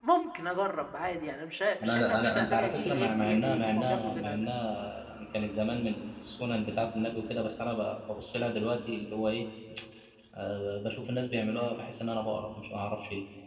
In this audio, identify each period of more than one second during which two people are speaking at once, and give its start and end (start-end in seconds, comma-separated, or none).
1.8-4.5